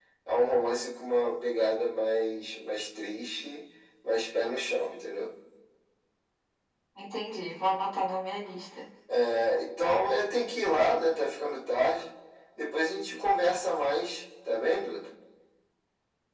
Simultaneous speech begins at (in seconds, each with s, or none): none